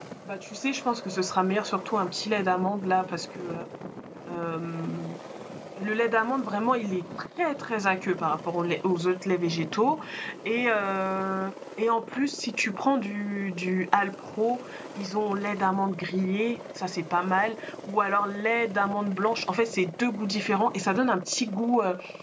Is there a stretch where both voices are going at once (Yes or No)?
No